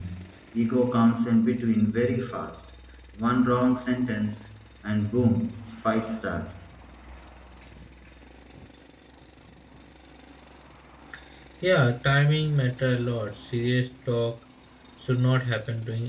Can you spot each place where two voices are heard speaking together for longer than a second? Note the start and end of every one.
none

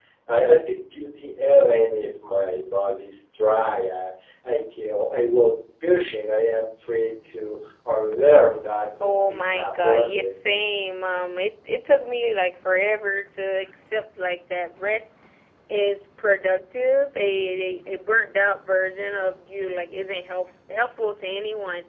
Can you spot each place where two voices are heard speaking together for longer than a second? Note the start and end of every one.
9.0-10.3

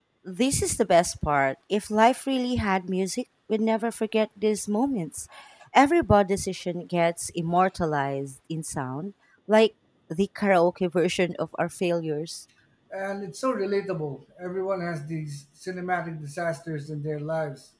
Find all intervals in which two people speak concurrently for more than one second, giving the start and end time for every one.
none

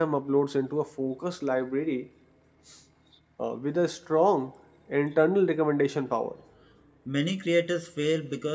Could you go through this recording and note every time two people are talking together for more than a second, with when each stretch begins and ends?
none

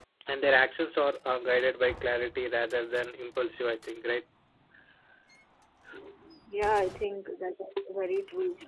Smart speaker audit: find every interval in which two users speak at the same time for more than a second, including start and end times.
none

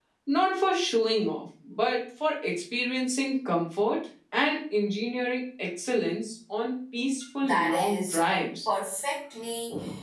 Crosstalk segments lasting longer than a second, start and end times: 7.4-8.7

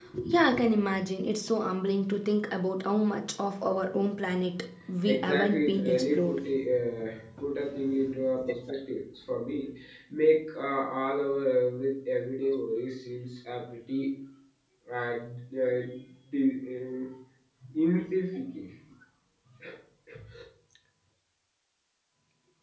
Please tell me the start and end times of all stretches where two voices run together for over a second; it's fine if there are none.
5.0-6.4

